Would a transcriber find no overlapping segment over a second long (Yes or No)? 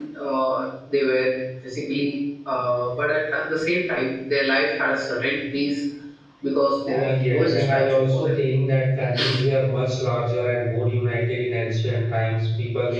No